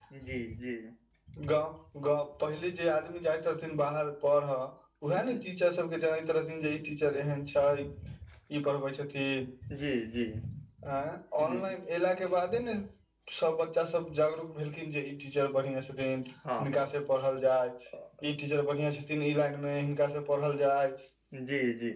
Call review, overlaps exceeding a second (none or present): none